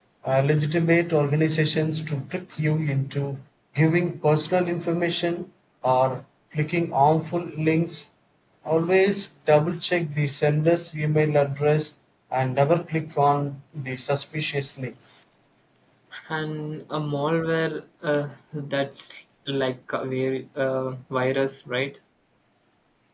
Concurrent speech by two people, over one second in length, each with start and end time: none

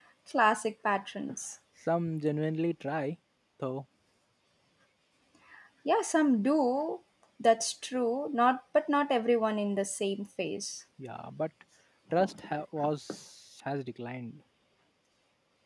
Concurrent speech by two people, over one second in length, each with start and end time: none

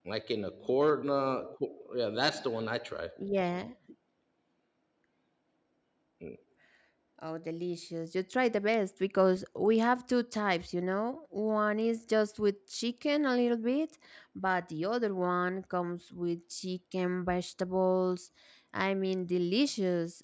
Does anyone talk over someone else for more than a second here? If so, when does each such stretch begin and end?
none

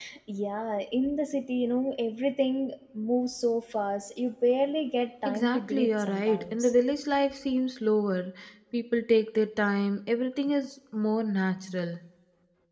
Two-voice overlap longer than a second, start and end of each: 5.2-6.7

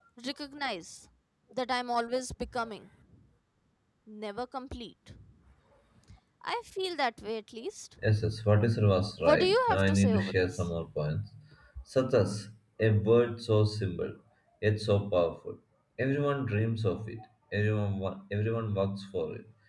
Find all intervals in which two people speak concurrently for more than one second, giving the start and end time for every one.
9.2-10.6

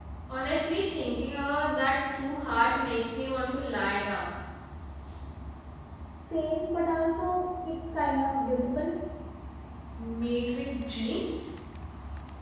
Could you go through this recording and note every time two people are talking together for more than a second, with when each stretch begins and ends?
none

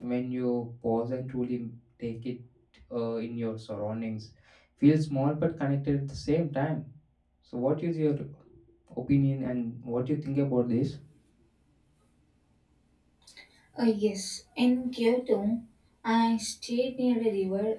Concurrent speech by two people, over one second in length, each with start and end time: none

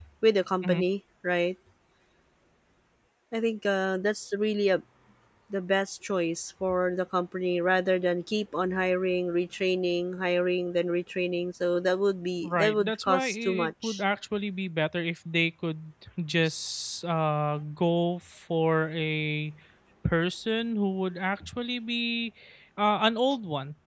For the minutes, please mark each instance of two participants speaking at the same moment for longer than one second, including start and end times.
12.4-14.0

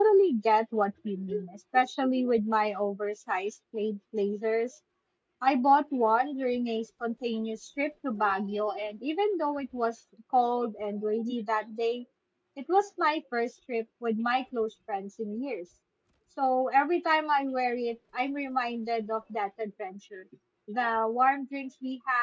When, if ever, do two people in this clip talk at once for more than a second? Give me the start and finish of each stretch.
none

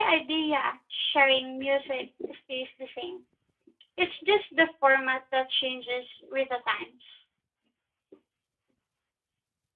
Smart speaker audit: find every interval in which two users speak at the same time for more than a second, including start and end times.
none

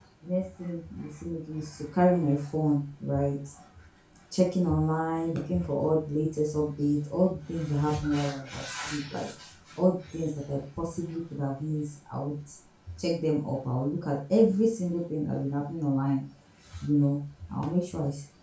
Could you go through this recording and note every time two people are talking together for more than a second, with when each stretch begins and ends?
none

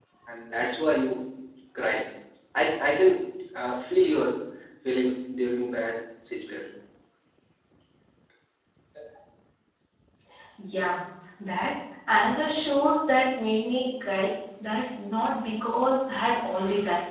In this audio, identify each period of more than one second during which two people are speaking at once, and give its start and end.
none

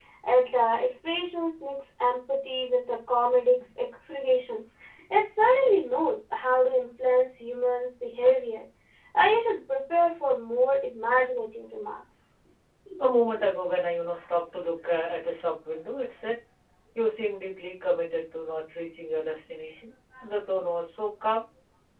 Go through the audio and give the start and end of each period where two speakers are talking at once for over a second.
none

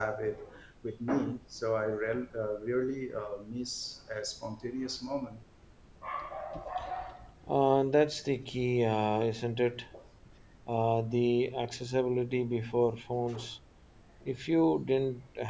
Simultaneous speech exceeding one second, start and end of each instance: none

